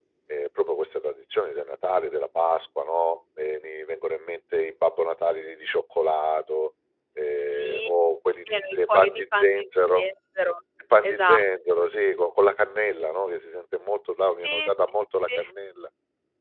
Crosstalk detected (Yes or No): Yes